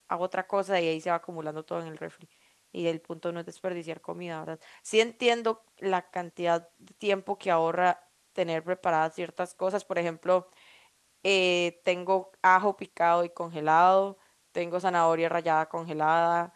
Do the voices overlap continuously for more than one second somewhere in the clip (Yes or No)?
No